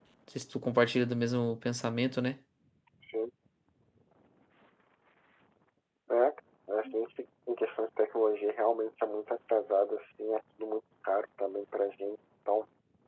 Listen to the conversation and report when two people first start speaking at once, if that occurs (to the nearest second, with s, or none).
none